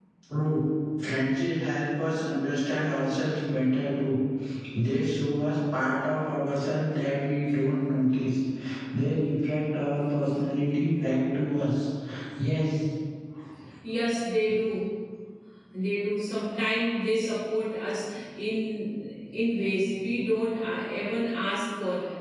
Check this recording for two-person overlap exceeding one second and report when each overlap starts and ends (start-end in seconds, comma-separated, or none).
none